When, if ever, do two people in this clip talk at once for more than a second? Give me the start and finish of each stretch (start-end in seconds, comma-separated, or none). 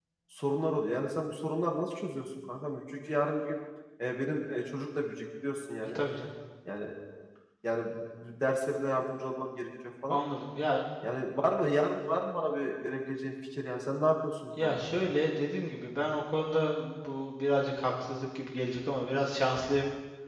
none